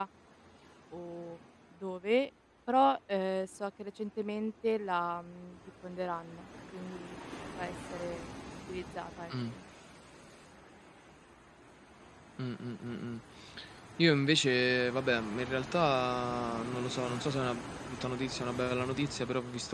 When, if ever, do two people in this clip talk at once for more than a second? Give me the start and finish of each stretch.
none

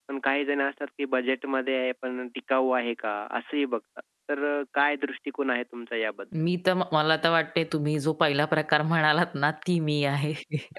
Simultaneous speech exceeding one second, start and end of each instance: none

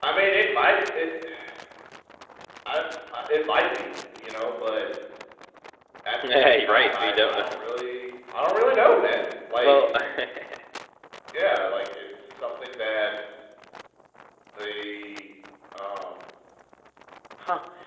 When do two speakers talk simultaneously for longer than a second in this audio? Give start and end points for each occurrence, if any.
6.3-7.6

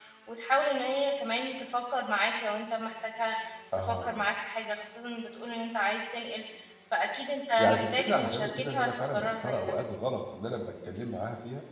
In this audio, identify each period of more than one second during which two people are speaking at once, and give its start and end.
7.6-9.7

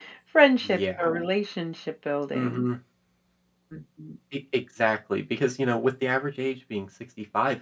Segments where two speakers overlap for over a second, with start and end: none

